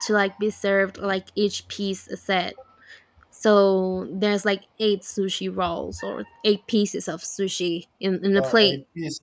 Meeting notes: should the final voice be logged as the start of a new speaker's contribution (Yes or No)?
Yes